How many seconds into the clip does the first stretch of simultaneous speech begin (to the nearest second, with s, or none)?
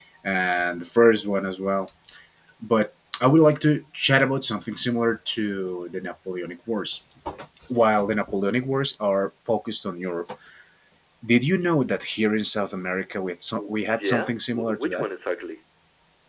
14 s